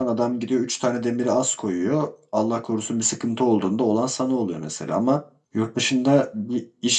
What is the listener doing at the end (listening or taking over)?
listening